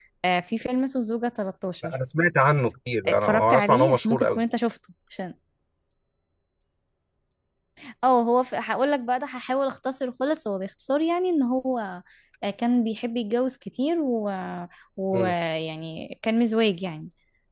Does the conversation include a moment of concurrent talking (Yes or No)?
Yes